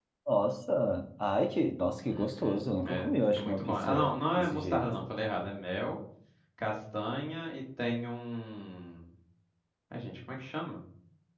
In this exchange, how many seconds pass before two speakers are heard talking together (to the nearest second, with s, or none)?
2 s